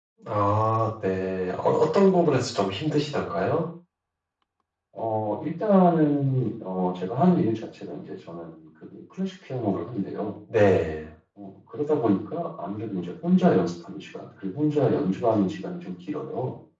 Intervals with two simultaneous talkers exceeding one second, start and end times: none

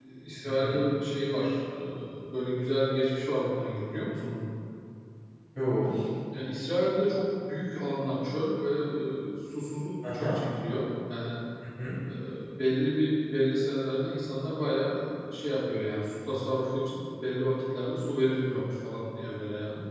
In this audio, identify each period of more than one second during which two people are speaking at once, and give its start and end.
none

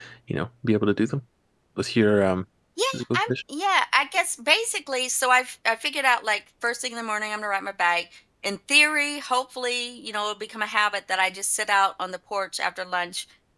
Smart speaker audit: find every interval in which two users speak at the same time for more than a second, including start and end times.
none

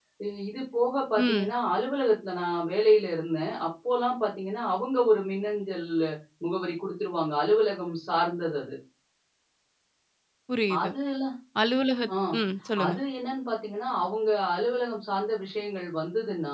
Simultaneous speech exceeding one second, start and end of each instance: none

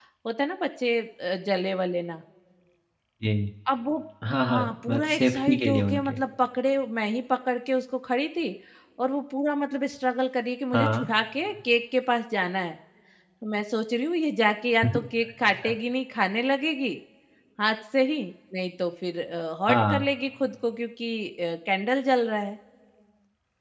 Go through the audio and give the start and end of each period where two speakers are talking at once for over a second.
4.4-6.1

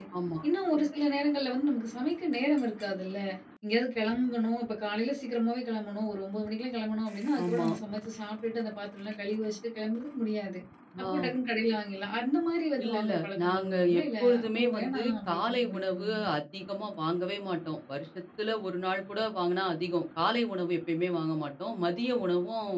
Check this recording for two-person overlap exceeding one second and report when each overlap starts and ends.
12.8-16.3

